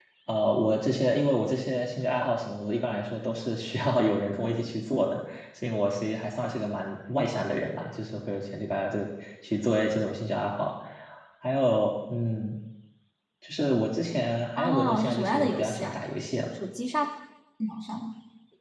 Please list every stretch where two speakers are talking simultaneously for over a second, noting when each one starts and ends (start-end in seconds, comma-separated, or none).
14.6-15.9